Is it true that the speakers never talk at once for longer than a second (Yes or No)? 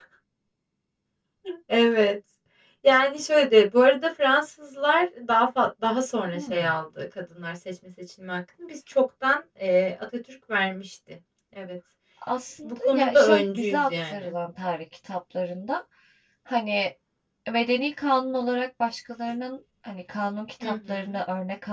No